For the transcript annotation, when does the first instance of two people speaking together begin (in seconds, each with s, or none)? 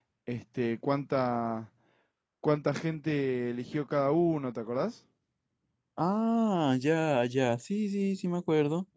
none